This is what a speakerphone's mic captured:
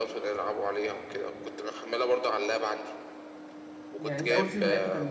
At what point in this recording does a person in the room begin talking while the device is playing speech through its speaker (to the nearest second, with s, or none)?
4 s